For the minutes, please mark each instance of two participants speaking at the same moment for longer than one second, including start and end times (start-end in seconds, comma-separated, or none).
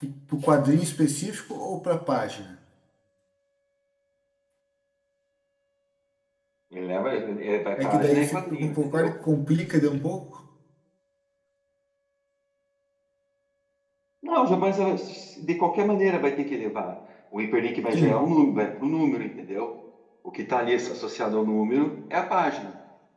7.8-9.1